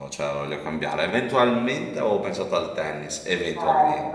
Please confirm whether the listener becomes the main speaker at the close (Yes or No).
Yes